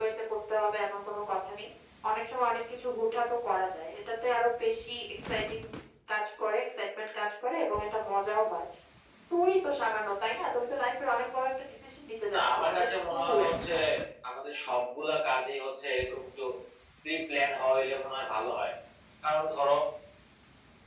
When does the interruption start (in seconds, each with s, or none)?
12.3 s